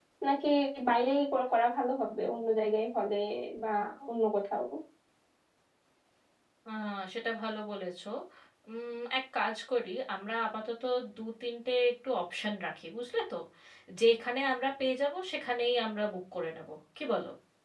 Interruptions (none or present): none